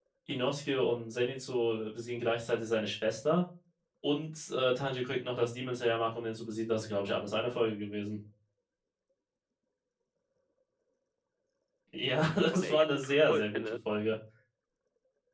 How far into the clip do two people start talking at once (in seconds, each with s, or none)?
12.2 s